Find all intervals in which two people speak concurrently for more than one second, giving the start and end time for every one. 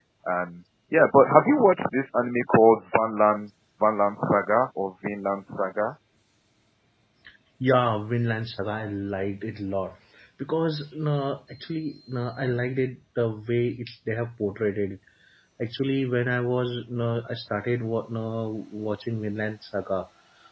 none

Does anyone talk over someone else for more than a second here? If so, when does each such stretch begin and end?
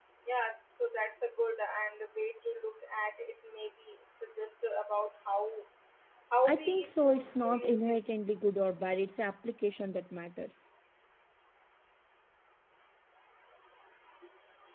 6.5-8.0

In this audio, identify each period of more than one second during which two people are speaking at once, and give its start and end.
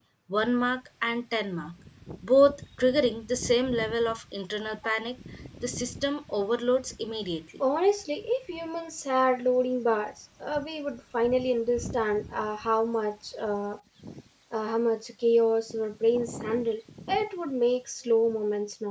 none

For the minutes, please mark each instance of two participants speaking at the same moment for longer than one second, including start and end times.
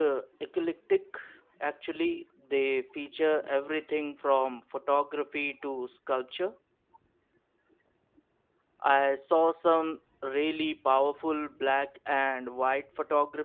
none

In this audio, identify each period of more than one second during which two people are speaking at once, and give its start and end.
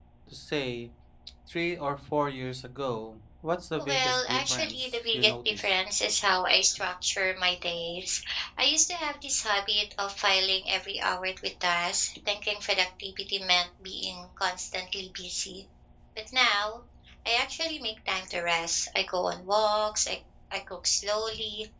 3.8-5.7

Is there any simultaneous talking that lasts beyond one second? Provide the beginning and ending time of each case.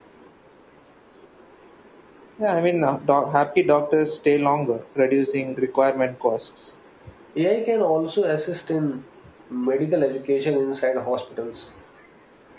none

